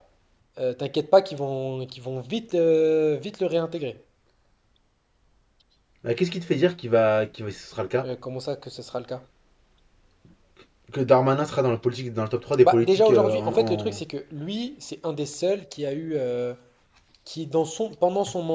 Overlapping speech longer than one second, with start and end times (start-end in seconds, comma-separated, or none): 12.6-14.0